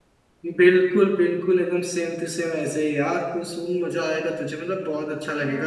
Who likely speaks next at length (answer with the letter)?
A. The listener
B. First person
A